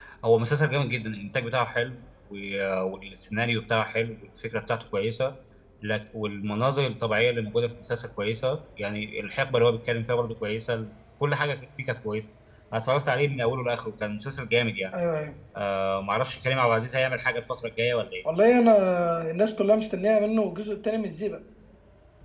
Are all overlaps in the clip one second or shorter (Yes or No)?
Yes